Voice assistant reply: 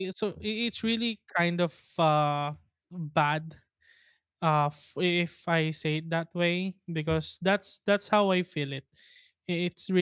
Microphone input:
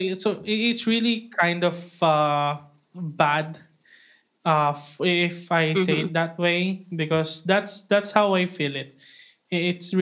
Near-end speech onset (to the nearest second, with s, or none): 6 s